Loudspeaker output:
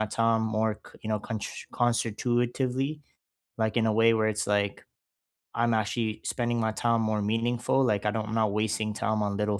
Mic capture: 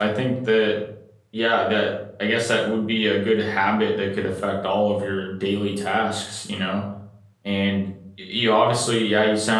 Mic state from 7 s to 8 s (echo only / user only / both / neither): user only